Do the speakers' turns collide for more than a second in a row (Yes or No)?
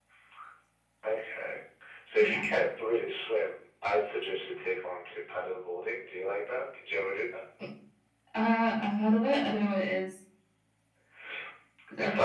No